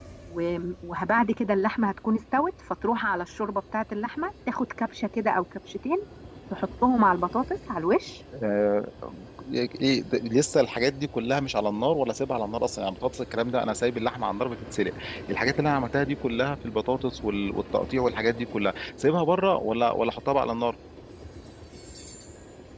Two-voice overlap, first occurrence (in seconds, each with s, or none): none